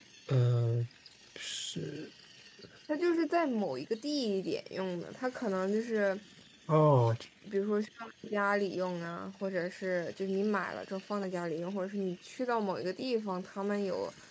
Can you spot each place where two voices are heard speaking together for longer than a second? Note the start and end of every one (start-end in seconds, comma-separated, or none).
none